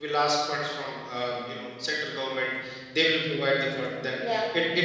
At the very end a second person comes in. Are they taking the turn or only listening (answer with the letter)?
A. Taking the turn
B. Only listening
B